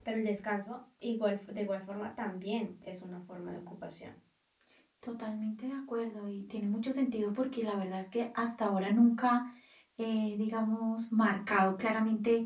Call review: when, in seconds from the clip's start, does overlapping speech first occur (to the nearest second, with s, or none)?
none